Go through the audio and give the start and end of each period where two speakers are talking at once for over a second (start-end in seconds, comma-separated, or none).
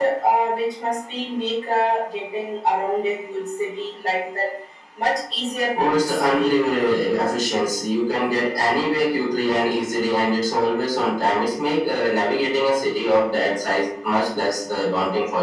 5.8-7.1